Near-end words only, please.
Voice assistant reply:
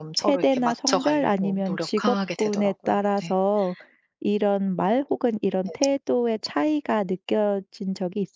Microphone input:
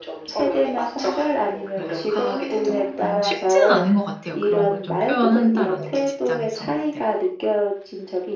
그래 좀 어 쉽지는 않은 것 같아요. 그런 걸 좀 표현한다라는 게 직장에서는. 네.

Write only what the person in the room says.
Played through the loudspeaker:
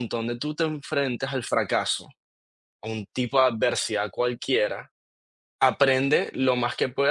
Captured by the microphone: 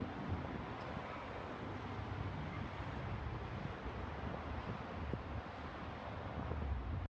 none

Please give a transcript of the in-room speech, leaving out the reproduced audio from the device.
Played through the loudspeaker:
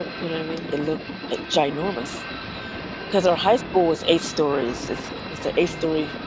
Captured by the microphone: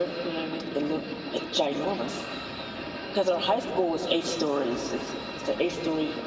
none

